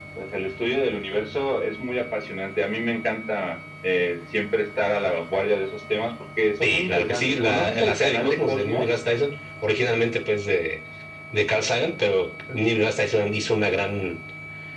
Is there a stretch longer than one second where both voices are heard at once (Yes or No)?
Yes